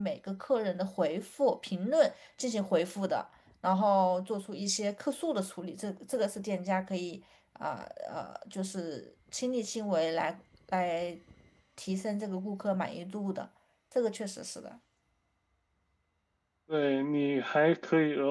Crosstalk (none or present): none